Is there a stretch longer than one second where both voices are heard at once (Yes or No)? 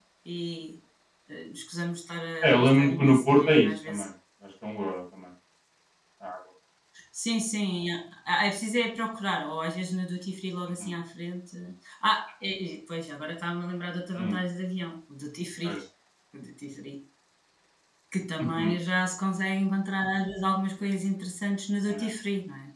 Yes